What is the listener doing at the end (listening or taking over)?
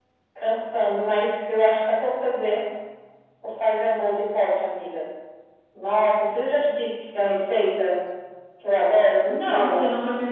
taking over